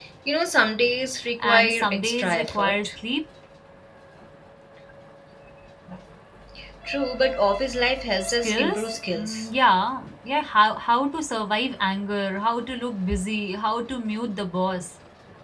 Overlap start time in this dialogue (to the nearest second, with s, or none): 1 s